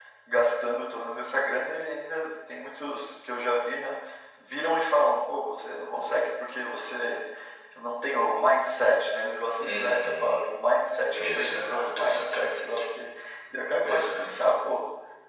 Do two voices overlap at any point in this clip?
Yes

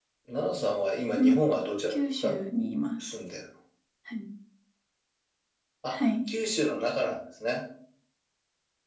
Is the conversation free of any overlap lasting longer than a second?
Yes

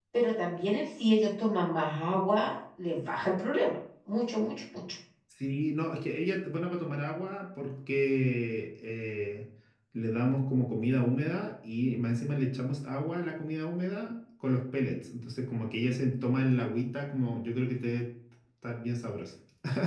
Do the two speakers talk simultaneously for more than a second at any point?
No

